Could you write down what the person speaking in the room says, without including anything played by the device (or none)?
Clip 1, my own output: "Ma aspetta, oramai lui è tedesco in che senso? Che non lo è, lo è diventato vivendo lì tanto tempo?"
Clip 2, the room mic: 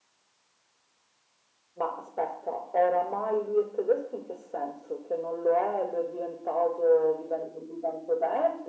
none